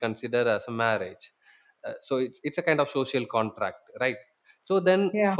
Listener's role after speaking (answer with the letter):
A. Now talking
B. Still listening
B